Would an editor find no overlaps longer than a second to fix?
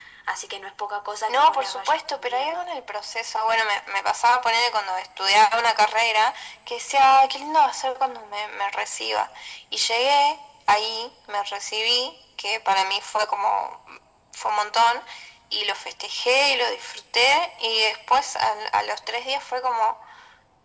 No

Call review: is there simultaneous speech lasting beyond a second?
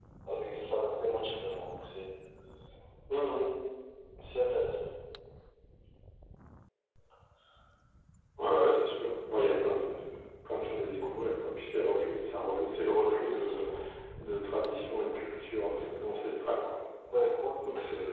No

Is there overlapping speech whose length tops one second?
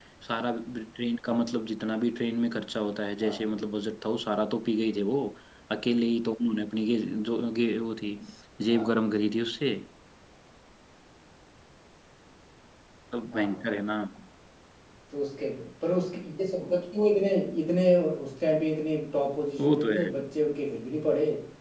No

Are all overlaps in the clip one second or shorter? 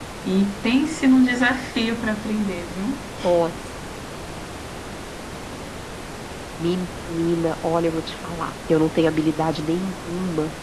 Yes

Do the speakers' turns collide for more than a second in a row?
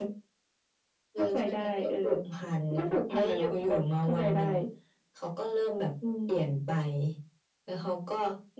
Yes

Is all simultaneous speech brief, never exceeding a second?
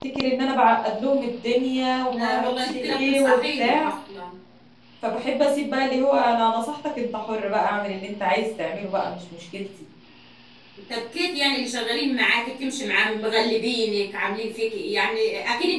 No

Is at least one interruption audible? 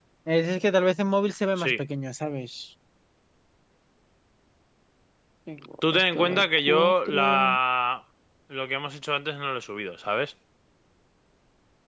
Yes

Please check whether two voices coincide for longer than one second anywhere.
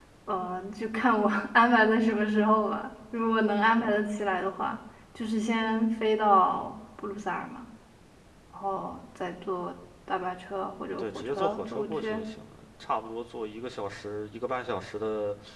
Yes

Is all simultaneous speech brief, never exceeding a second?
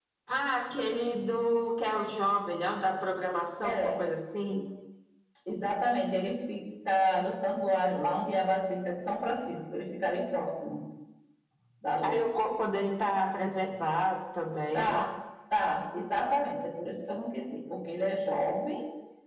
Yes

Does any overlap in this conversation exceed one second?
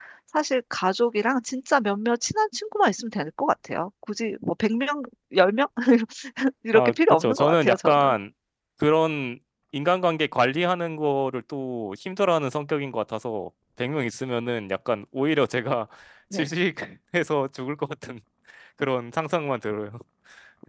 Yes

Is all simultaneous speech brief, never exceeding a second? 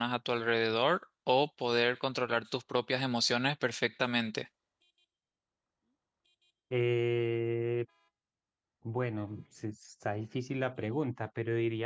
Yes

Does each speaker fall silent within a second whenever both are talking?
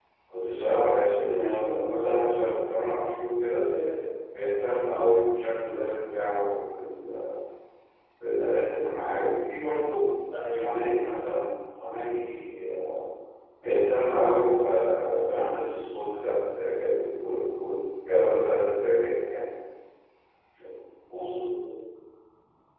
Yes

